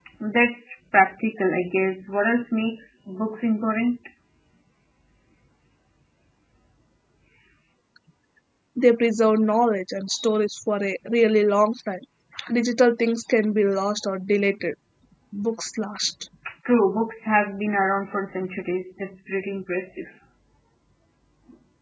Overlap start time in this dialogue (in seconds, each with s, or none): none